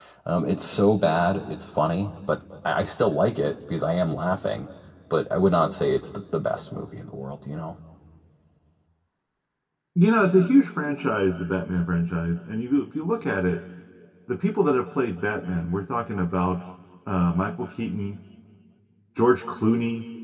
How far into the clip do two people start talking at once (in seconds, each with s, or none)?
none